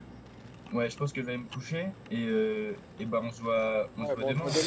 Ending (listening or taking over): taking over